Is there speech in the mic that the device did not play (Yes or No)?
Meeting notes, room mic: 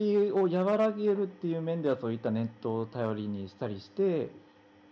Yes